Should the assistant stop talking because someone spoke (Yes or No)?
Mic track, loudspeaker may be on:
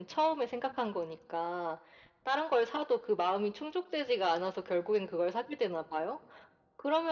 No